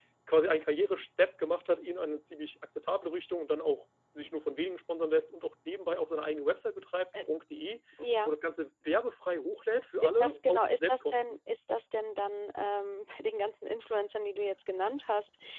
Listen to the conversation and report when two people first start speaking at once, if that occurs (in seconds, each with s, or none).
10.0 s